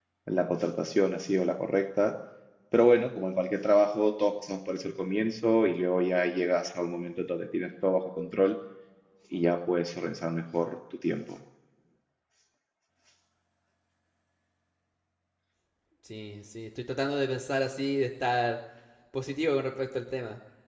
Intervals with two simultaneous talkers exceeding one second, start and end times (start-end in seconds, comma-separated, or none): none